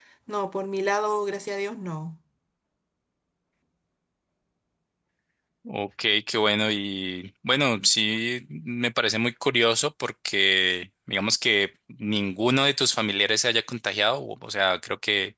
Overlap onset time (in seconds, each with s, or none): none